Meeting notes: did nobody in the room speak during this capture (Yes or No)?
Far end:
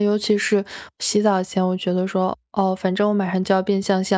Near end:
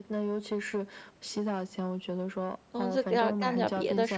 No